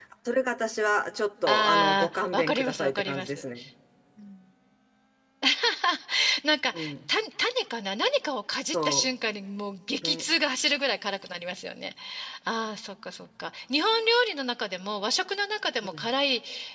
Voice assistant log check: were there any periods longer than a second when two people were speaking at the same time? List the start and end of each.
1.5-3.4

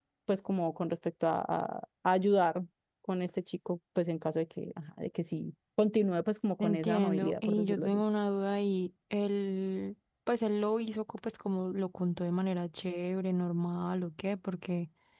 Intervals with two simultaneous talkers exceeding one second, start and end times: 6.6-8.0

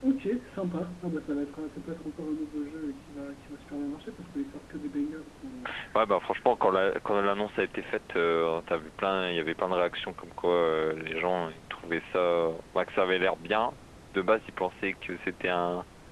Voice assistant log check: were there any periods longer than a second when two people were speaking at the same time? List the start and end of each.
none

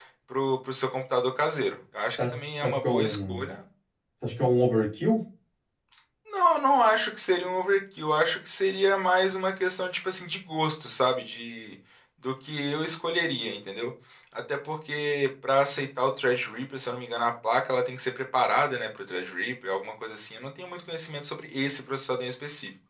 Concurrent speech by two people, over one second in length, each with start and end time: 2.2-3.4

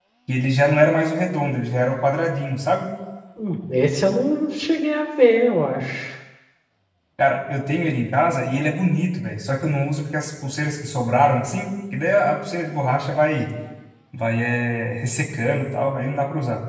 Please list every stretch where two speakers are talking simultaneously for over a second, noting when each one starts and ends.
none

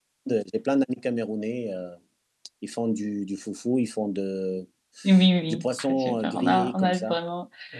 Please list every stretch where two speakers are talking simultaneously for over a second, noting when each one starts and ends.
5.5-7.2

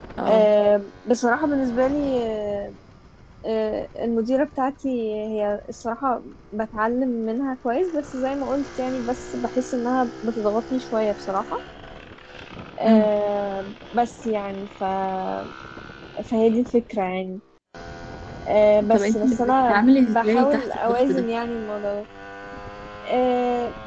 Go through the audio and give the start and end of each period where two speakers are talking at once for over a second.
18.9-21.2

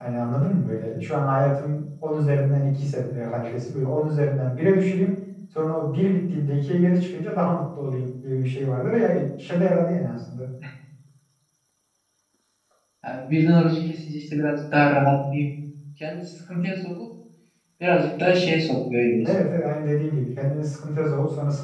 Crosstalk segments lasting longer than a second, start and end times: none

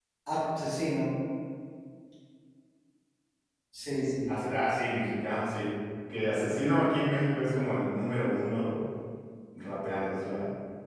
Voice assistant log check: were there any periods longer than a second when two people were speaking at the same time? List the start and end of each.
none

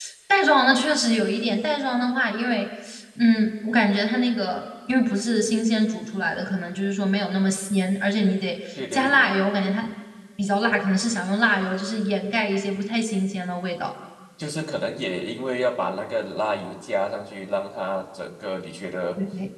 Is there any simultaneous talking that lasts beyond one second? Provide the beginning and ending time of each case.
none

